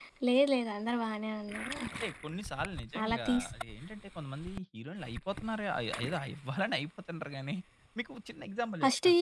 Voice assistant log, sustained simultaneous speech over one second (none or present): none